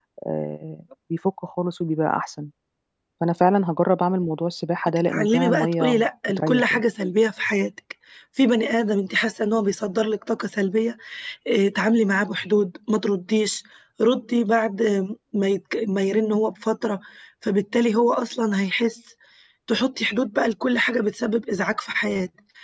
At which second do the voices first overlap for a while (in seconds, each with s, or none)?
5.1 s